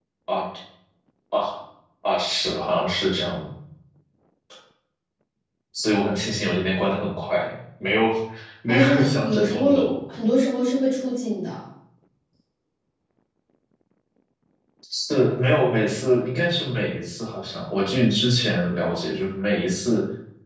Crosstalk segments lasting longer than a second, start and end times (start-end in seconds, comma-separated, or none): 8.7-9.9